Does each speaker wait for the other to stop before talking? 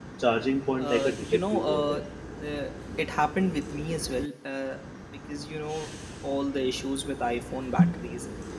No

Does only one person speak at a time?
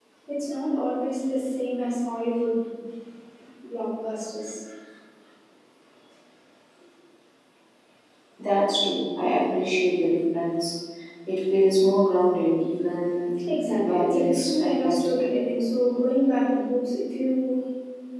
No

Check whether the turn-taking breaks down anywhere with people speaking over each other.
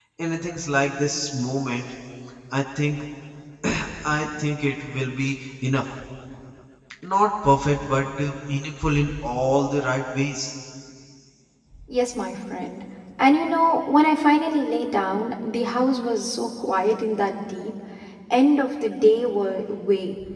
No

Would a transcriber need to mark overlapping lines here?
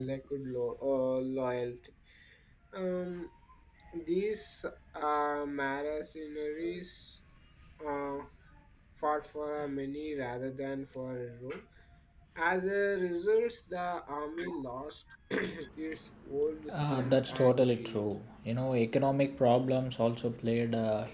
Yes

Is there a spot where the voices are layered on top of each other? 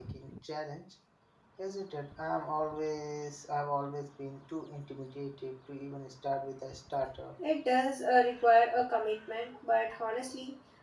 No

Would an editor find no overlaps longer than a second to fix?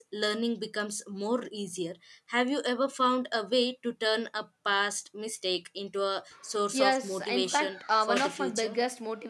No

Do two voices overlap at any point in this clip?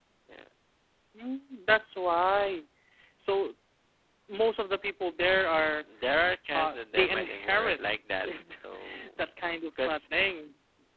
Yes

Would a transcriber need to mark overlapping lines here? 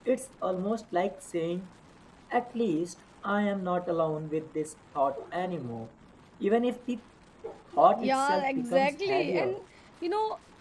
Yes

